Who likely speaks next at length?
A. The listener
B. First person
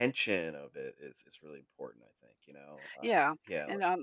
A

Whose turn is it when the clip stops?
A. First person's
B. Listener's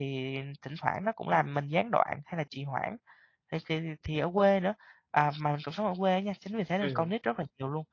A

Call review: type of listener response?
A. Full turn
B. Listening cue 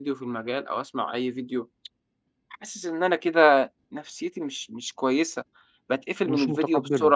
B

